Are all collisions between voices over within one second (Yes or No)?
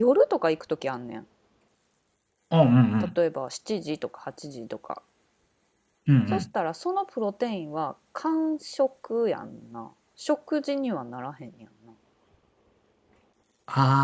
Yes